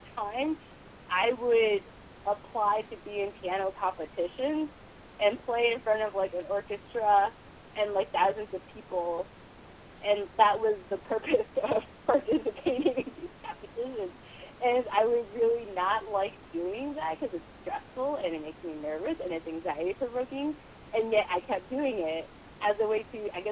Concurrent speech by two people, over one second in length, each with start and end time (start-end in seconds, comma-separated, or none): none